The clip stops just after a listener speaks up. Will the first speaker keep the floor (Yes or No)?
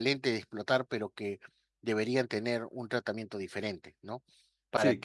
Yes